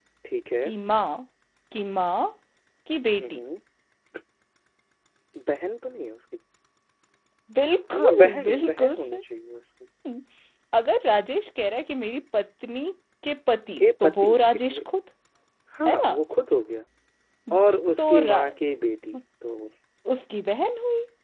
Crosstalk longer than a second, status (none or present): present